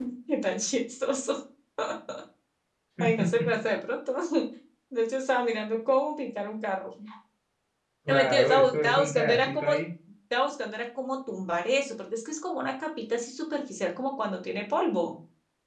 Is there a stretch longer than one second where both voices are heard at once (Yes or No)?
Yes